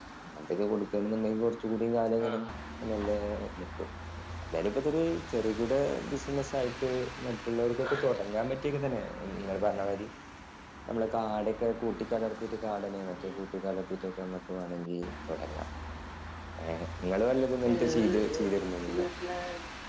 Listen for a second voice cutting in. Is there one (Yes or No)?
Yes